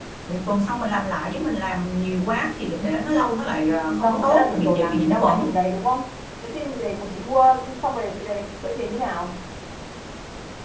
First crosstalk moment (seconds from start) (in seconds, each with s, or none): 3.7 s